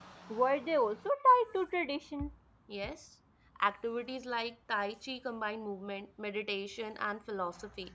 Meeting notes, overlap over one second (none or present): none